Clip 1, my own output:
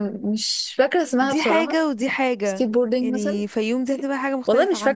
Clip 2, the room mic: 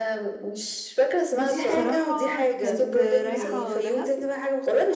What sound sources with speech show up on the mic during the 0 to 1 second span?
echo only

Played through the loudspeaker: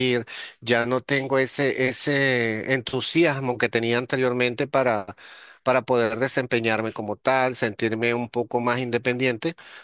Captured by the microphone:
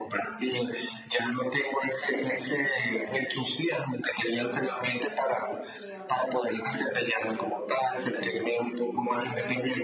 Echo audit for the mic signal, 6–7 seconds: both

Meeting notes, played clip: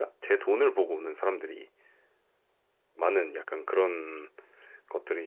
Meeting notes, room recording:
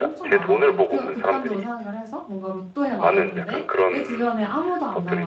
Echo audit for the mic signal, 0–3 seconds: both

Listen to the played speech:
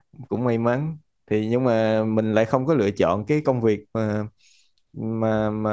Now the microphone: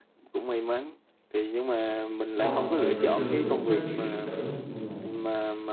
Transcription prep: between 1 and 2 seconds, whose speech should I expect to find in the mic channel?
echo only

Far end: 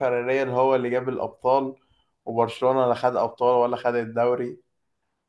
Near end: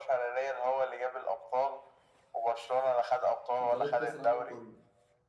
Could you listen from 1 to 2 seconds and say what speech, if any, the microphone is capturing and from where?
echo only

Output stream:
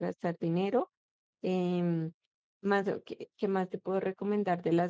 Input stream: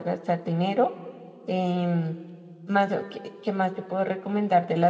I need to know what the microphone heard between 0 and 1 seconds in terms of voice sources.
echo only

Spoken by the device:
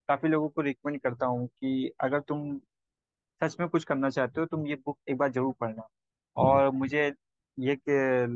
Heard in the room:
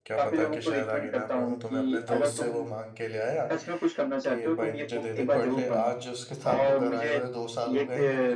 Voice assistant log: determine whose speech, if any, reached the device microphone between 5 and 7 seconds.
both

